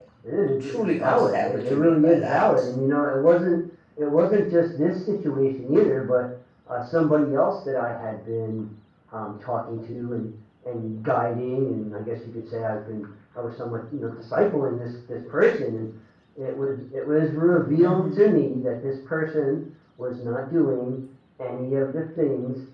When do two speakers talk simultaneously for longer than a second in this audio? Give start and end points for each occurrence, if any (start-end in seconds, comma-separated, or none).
0.7-2.4